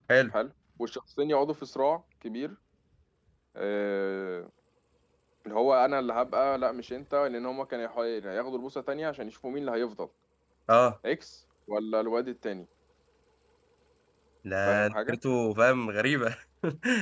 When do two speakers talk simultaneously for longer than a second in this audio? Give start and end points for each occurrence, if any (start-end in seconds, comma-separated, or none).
none